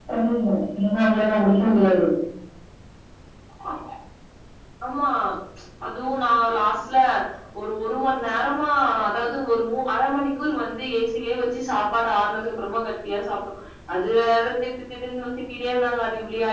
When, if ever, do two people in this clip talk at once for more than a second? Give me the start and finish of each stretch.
none

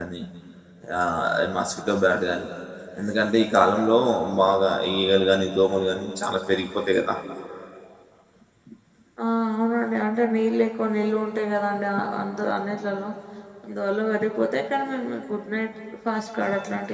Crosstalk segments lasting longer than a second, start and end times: none

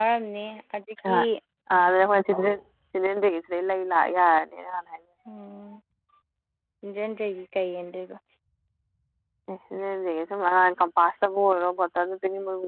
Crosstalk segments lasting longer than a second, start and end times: none

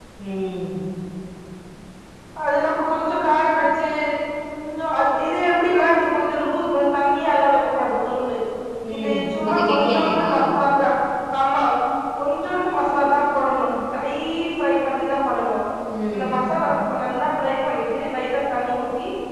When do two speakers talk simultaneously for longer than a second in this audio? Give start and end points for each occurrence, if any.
9.0-10.3

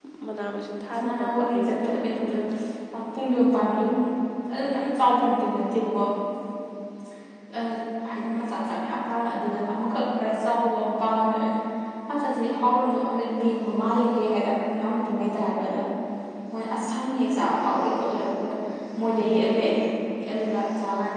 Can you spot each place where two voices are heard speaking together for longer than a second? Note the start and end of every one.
0.9-2.5

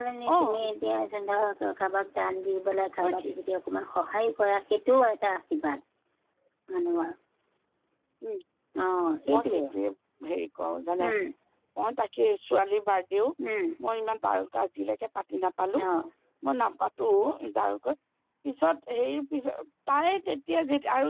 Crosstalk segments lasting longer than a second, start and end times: none

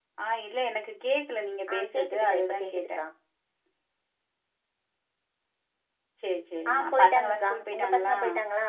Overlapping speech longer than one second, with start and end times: 1.7-3.0, 6.7-8.2

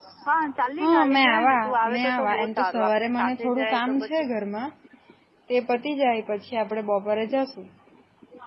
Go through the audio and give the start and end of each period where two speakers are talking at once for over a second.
0.8-4.1

